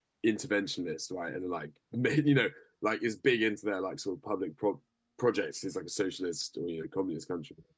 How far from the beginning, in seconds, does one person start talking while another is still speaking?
none

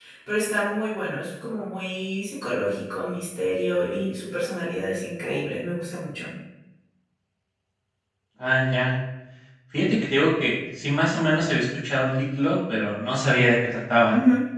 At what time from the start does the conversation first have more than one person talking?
none

